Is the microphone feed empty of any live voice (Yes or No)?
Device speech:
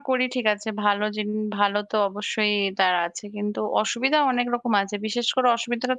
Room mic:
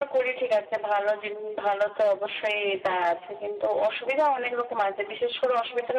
Yes